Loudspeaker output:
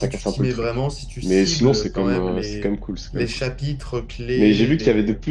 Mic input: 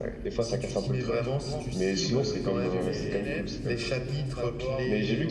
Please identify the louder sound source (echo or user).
echo